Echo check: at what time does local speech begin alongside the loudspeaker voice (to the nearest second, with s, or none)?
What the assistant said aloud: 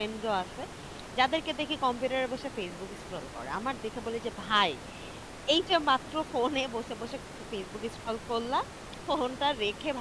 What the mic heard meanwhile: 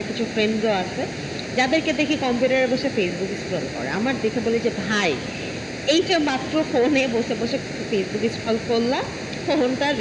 none